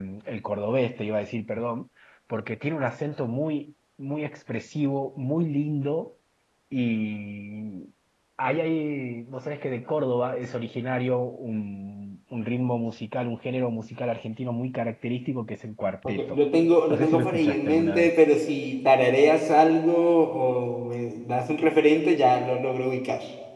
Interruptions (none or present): present